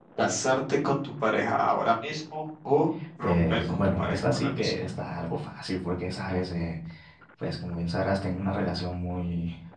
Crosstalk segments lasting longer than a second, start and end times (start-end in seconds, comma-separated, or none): 3.2-4.7